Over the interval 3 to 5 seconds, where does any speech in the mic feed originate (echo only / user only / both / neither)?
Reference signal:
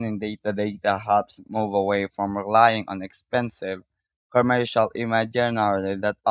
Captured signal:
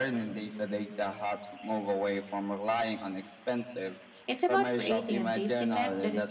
both